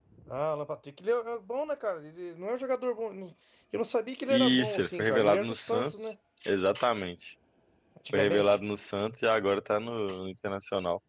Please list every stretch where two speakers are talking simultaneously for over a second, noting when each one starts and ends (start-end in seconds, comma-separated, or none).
4.3-6.2